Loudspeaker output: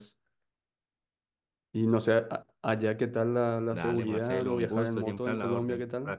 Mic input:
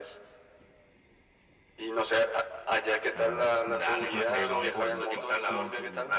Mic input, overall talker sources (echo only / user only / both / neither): both